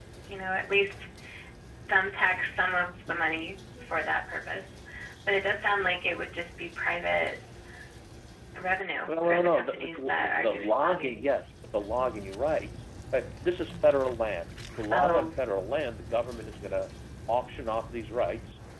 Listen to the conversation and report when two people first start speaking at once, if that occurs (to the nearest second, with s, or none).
9 s